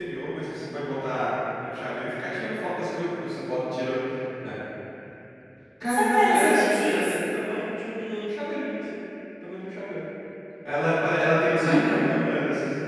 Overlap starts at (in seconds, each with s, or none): 5.9 s